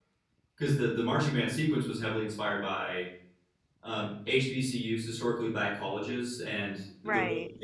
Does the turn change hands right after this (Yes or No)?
No